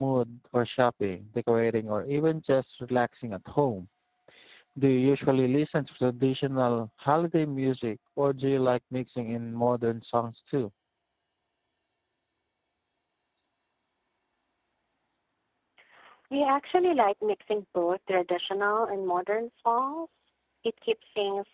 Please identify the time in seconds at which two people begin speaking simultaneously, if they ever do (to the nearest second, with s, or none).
none